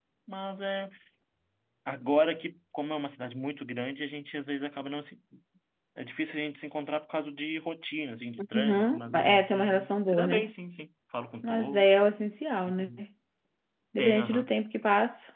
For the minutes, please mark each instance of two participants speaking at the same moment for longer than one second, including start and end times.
8.5-10.5

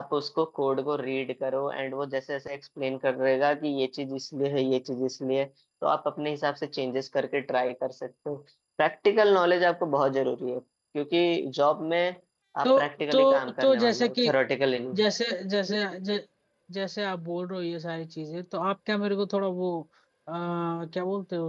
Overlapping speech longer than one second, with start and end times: 12.6-14.3

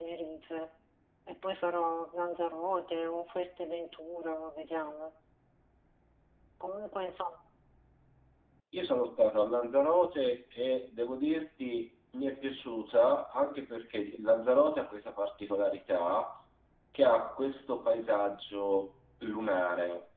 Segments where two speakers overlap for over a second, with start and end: none

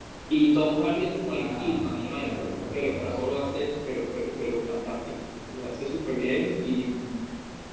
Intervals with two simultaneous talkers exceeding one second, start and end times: 1.3-3.4

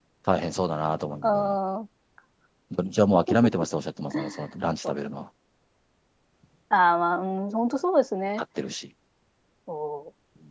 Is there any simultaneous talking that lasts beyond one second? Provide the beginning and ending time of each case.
none

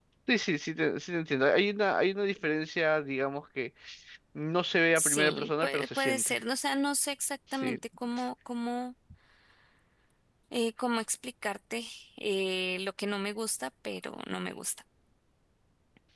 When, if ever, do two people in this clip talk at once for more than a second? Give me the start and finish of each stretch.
5.0-6.3

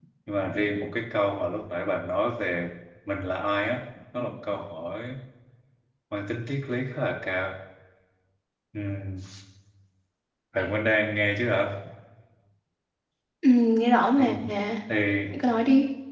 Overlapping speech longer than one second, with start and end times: none

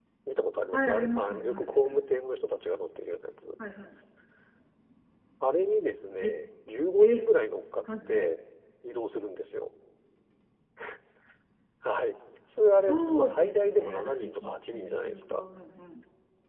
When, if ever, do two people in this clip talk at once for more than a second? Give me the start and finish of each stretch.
0.7-2.0, 12.8-15.4

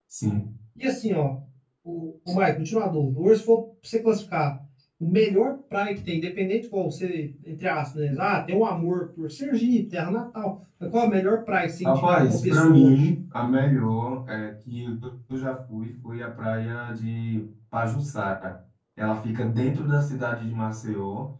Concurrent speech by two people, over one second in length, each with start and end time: 11.8-13.1

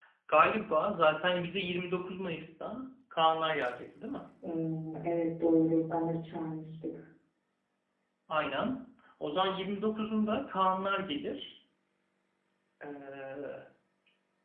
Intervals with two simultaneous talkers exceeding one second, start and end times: none

